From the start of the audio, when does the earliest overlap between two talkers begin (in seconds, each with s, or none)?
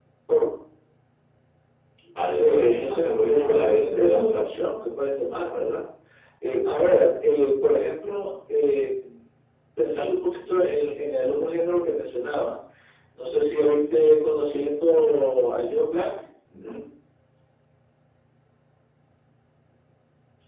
2.3 s